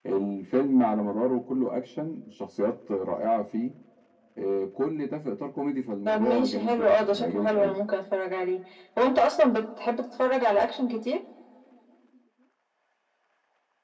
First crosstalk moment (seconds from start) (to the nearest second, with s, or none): 6 s